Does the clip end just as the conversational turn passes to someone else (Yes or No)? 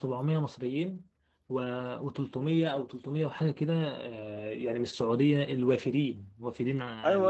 Yes